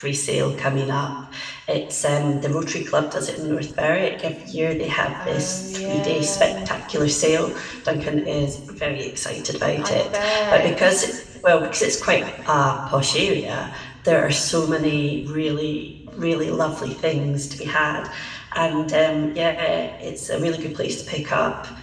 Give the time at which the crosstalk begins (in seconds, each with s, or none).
5.3 s